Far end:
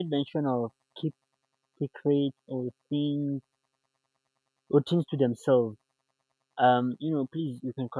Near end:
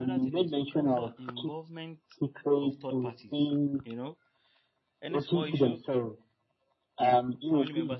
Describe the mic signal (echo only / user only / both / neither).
both